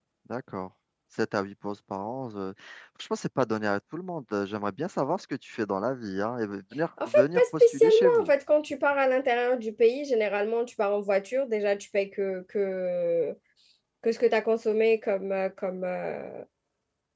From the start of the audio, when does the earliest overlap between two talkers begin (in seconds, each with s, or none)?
7.0 s